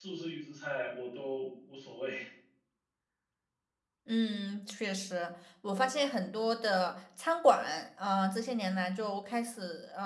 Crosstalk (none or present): none